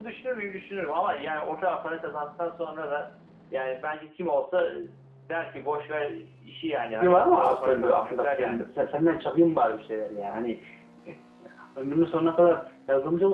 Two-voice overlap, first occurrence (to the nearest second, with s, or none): 7 s